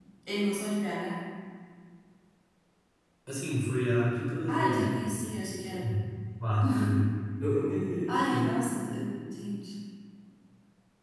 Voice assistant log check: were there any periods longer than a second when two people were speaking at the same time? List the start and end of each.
none

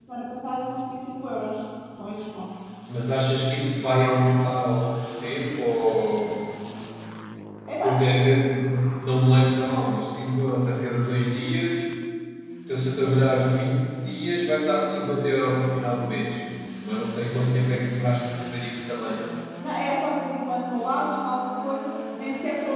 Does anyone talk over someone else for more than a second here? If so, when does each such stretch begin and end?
none

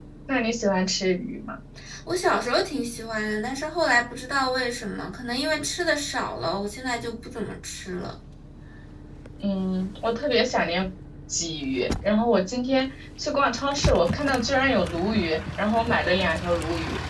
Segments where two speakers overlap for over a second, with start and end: none

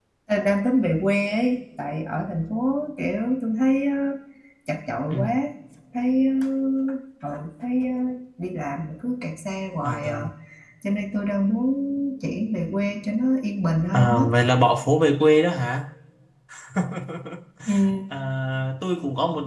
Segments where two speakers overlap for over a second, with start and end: none

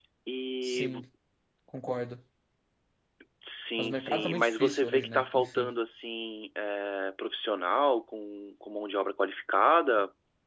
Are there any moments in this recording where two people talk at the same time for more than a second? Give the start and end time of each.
3.8-5.7

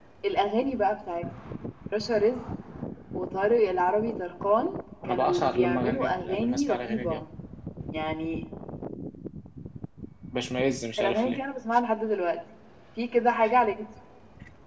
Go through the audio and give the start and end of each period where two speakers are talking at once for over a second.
5.0-7.2

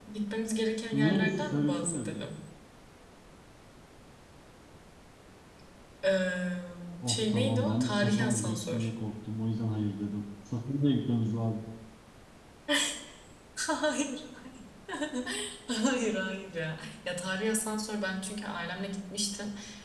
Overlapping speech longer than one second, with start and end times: 0.9-2.2, 7.0-8.9

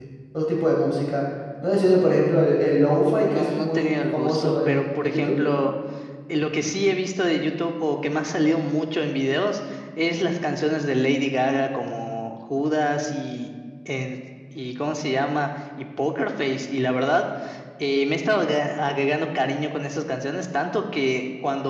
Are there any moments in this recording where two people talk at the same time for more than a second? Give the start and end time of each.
3.3-5.3

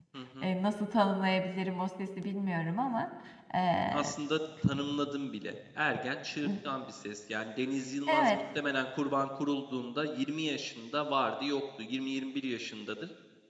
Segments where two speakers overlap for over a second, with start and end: none

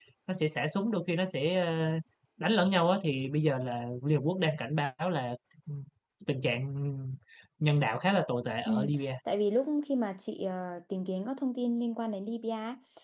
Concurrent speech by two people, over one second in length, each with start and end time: none

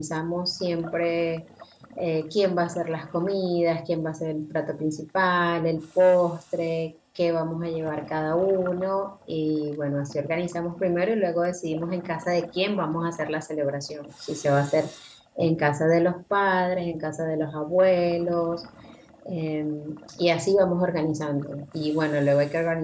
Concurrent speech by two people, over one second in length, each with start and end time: none

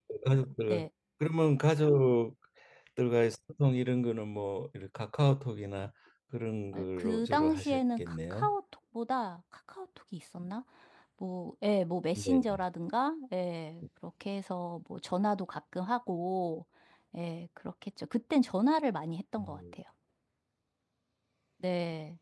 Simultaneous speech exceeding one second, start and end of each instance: 6.7-8.5

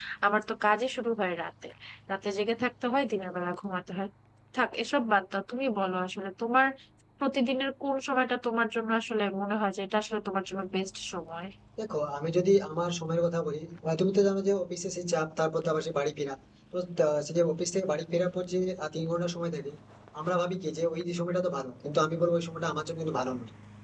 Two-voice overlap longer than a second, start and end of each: none

